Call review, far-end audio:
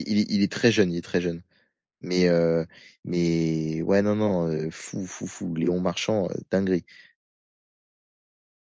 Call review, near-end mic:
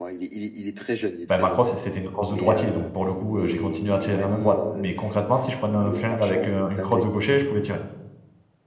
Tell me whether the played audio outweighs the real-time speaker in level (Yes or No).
No